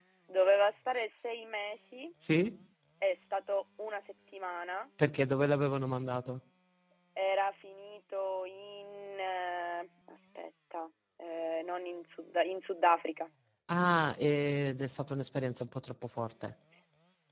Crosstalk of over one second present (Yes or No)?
No